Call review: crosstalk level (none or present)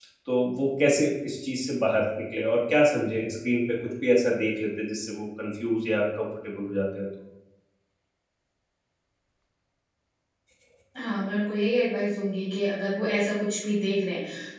none